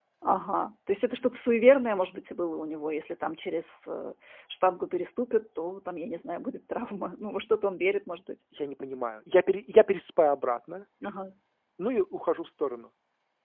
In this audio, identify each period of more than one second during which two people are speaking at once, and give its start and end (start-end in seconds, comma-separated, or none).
none